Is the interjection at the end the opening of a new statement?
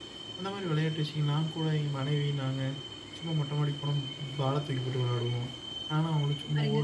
No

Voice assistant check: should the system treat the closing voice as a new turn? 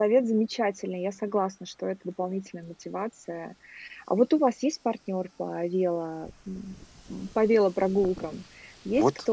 Yes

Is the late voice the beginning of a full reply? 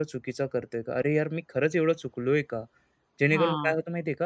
No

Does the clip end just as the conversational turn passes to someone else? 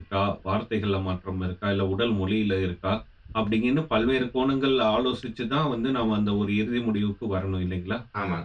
Yes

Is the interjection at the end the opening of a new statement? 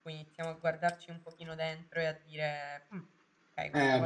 No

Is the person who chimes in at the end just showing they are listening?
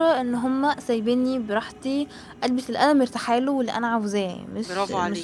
No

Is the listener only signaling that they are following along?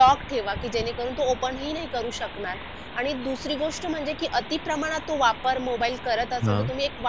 Yes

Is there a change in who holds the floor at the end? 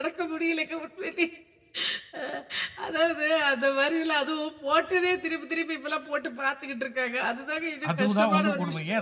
Yes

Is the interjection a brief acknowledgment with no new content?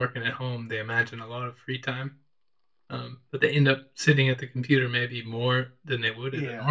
No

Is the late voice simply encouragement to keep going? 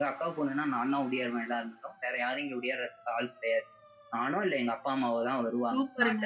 No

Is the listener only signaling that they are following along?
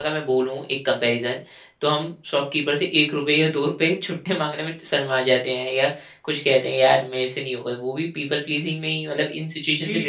No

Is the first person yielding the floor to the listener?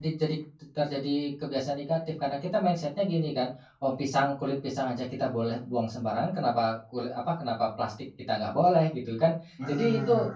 No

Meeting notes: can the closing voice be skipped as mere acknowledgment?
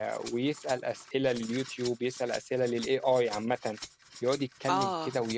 Yes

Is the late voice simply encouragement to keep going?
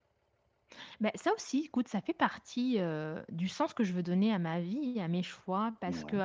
Yes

